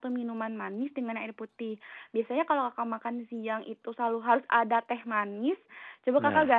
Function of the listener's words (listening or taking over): listening